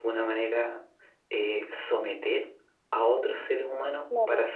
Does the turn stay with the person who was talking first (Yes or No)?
Yes